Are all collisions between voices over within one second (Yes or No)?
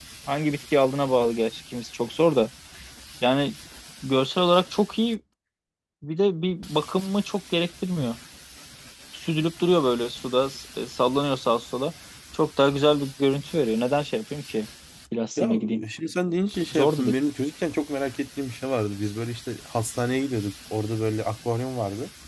Yes